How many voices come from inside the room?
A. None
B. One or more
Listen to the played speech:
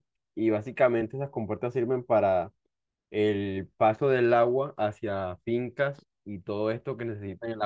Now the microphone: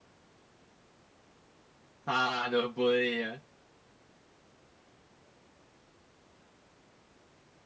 B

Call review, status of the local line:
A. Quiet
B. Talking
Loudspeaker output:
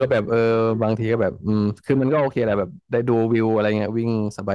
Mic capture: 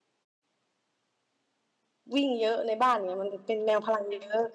B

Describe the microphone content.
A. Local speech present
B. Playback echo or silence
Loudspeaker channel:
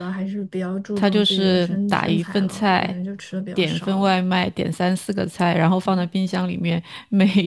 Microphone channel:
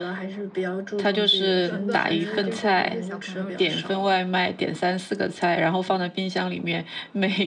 A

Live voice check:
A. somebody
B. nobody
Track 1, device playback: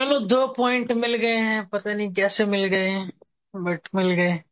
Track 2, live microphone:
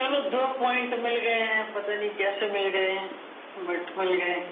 B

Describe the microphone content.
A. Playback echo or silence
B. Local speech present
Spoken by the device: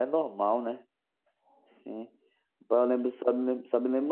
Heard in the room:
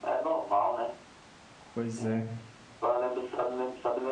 B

